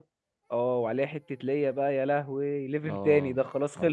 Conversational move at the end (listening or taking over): taking over